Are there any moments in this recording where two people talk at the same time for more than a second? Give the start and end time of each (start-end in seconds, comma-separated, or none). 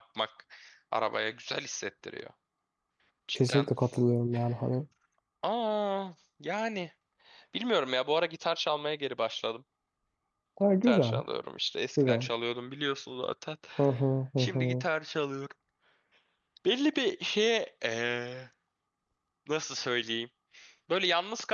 none